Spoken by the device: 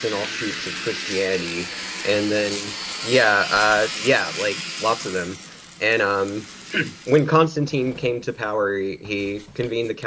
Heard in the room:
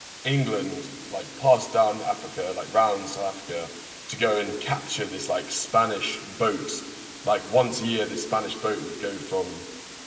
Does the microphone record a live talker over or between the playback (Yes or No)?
Yes